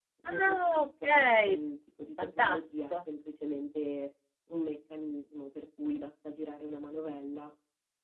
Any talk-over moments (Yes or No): Yes